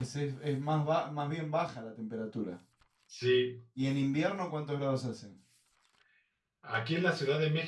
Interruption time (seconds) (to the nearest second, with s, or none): none